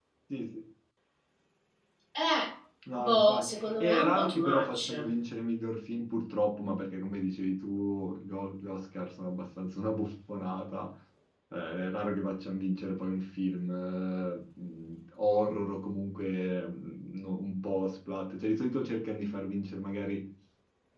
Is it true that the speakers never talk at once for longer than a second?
No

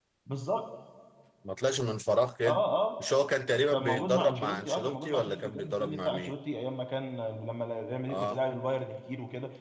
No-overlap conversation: No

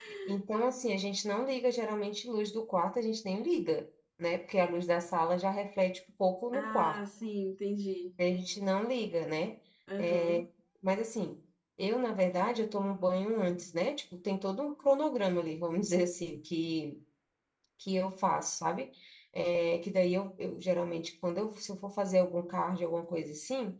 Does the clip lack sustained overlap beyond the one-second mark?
Yes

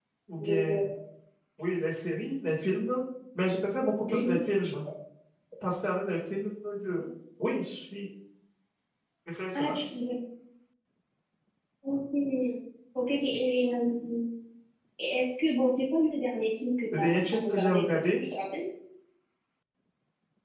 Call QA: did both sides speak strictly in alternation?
No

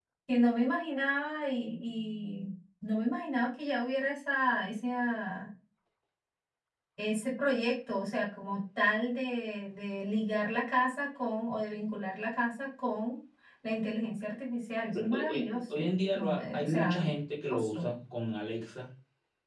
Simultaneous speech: Yes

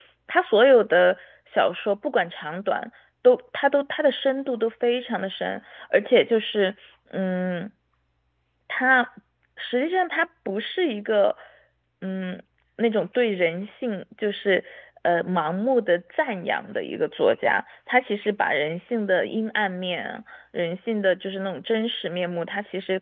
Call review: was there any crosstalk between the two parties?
No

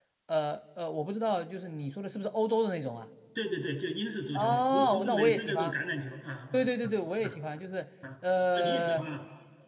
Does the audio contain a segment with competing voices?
Yes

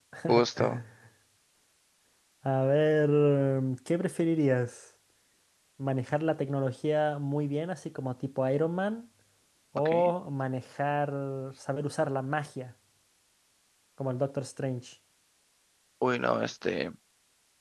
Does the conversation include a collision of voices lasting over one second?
No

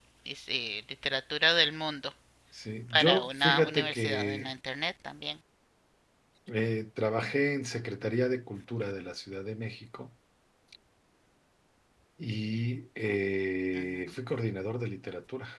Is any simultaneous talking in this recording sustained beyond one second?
Yes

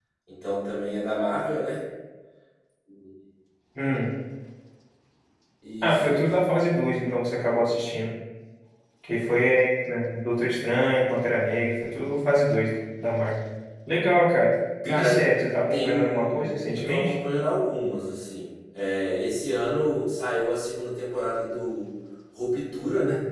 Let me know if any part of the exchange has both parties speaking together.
Yes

